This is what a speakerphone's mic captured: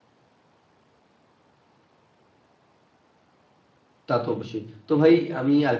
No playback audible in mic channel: Yes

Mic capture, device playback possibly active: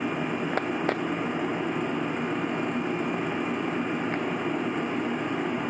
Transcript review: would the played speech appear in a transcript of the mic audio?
No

